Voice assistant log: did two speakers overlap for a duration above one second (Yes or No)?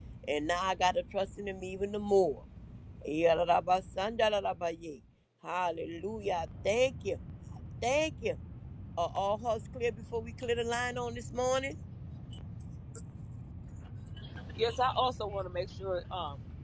No